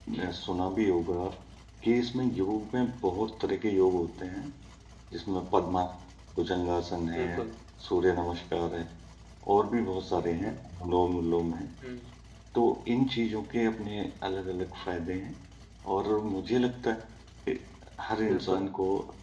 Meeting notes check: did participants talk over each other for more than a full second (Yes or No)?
No